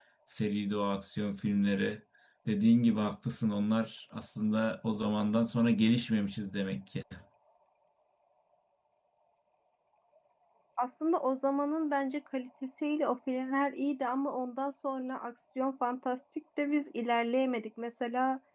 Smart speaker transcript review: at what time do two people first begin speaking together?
none

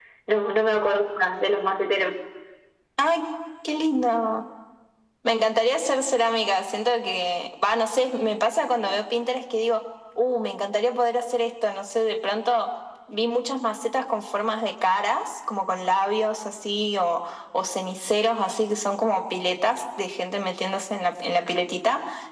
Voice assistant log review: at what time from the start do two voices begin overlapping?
none

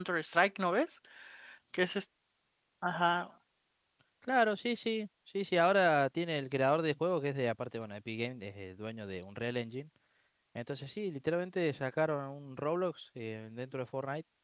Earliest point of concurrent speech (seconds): none

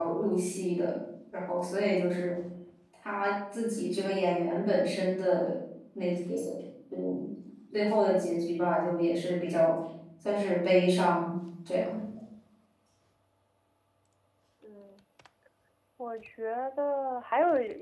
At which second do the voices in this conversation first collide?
none

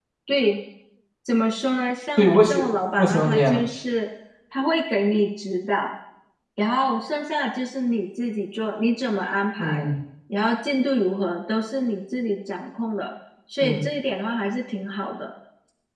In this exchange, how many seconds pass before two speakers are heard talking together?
2.2 s

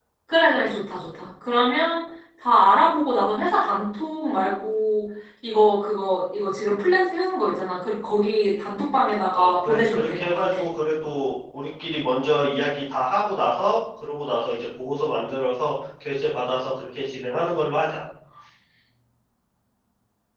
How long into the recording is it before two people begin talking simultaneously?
9.3 s

